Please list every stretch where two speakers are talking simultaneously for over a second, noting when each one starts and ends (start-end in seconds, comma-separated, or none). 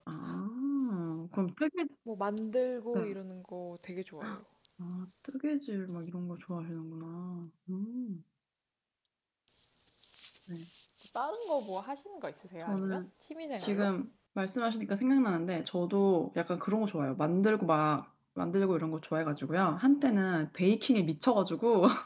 none